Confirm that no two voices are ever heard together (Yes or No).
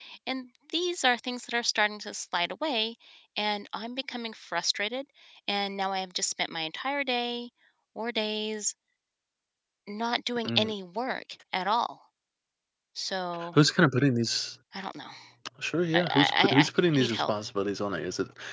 No